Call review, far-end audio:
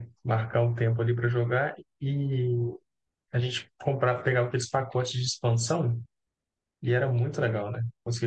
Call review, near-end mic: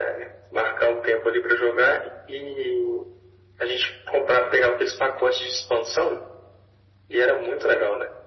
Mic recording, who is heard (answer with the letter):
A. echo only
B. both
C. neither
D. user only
A